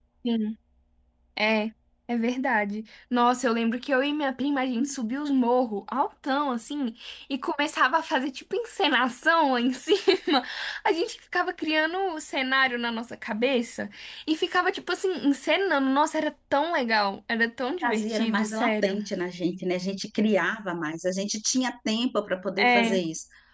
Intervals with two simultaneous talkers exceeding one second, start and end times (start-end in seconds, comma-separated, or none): 17.6-19.0